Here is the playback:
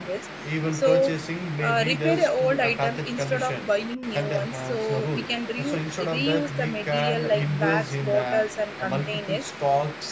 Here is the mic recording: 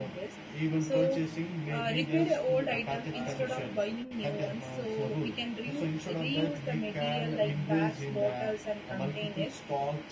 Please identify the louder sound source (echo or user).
echo